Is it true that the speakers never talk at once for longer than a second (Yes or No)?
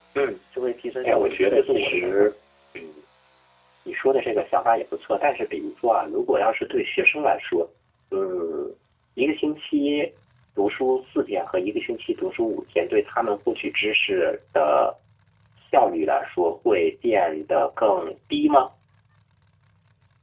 No